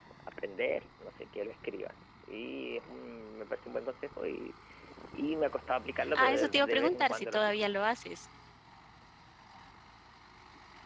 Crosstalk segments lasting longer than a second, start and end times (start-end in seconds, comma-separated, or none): 6.2-7.6